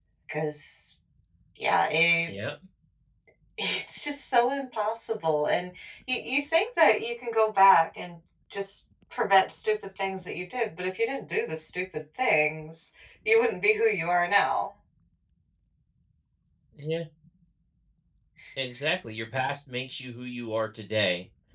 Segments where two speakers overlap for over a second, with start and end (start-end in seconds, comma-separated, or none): none